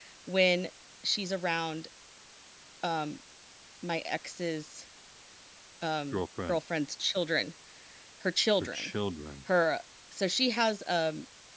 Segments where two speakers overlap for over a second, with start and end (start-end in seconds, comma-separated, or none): none